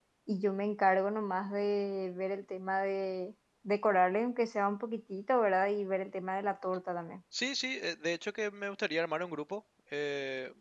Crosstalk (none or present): none